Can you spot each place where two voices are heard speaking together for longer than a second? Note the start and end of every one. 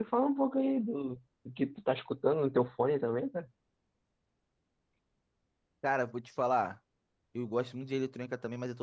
none

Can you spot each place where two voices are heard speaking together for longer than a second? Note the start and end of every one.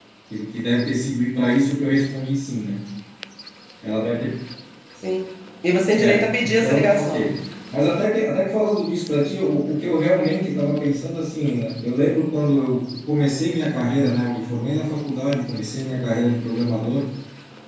6.0-7.4

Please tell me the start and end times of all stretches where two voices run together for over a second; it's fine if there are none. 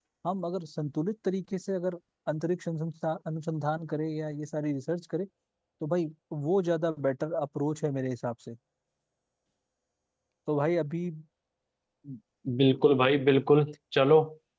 none

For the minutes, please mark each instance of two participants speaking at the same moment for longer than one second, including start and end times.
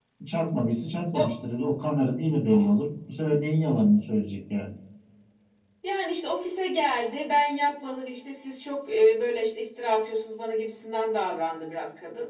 none

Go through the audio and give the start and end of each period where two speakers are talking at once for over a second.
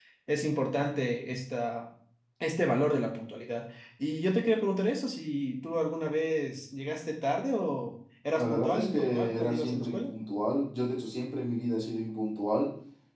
8.4-10.1

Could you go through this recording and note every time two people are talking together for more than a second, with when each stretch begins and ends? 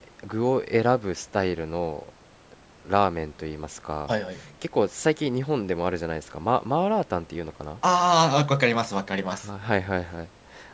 none

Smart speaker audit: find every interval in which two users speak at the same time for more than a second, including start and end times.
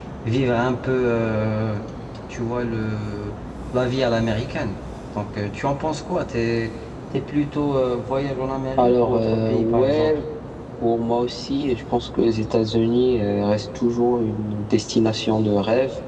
8.8-10.2

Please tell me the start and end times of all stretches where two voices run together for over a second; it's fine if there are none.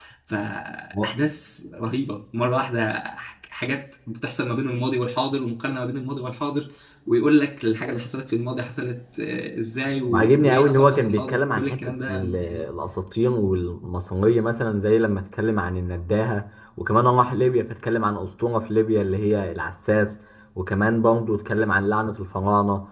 10.1-12.6

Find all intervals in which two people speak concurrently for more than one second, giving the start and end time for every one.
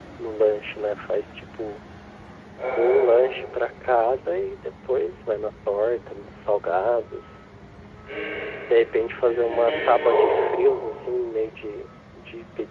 9.1-10.4

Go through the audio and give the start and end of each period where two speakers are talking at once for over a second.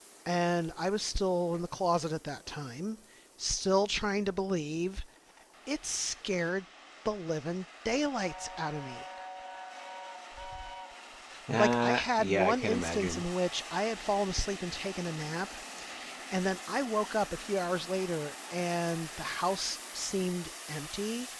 11.6-13.2

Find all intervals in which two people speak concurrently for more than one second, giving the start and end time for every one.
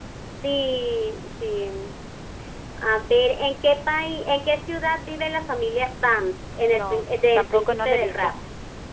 6.7-8.3

